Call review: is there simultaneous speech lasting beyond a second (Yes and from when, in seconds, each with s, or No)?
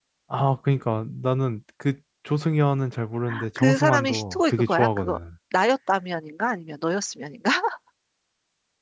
Yes, from 3.6 s